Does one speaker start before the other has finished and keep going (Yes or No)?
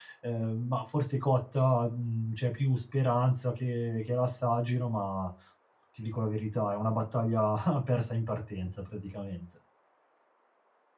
No